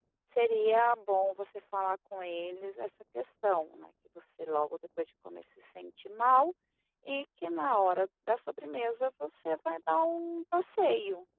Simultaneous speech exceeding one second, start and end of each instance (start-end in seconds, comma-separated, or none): none